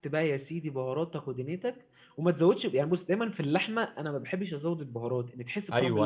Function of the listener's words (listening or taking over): taking over